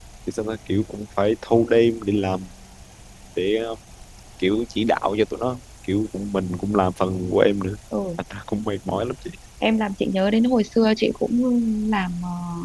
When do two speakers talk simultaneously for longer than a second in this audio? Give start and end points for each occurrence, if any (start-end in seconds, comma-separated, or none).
none